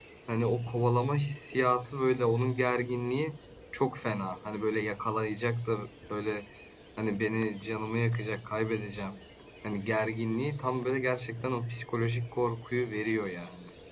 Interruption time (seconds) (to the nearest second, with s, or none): none